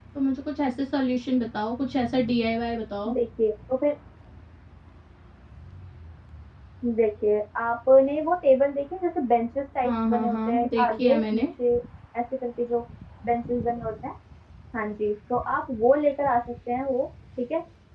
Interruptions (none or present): present